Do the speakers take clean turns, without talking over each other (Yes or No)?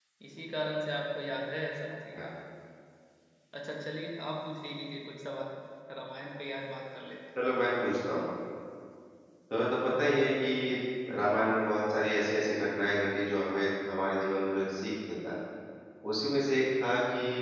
Yes